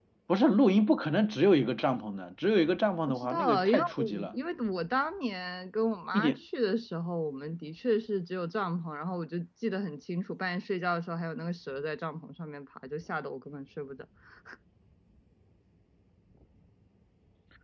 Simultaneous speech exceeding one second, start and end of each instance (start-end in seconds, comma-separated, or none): 3.0-4.3